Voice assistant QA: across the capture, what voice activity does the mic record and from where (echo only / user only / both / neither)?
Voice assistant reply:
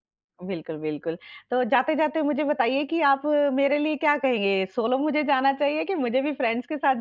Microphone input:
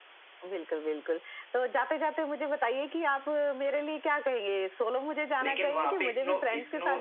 both